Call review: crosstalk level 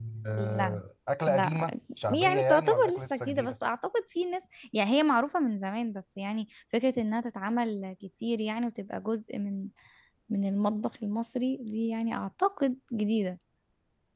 present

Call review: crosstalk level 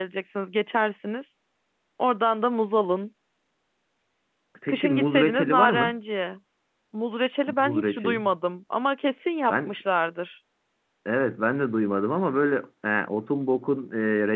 present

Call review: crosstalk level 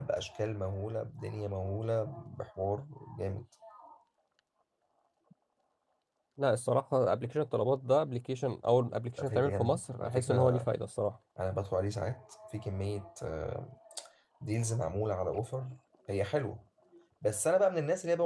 present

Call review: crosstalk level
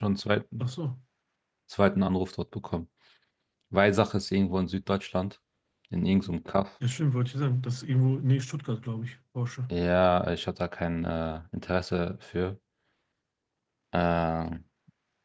none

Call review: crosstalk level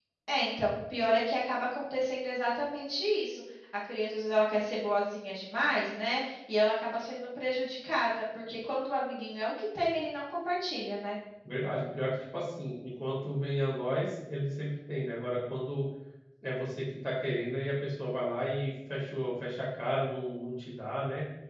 none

